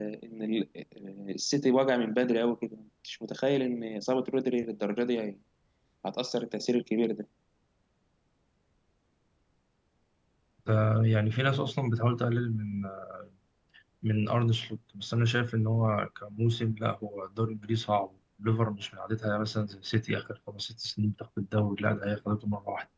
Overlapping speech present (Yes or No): No